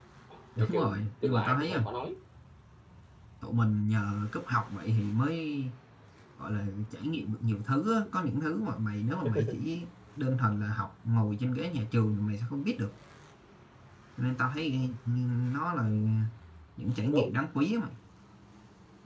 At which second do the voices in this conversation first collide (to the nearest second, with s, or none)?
1 s